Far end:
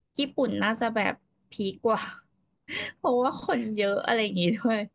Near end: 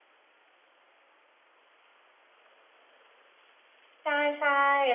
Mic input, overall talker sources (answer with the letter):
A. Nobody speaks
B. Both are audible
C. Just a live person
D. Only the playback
C